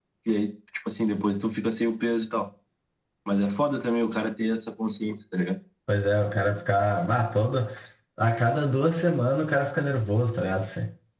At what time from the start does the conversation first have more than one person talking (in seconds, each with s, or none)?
none